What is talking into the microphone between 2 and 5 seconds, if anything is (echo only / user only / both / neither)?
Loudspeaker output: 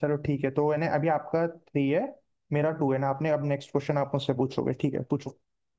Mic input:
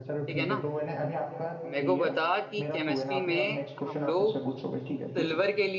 both